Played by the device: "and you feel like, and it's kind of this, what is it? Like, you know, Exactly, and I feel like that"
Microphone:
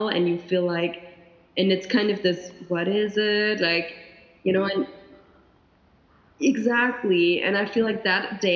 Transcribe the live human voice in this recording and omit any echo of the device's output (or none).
none